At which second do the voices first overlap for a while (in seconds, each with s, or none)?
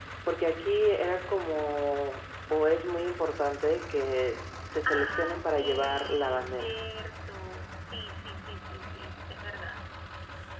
4.8 s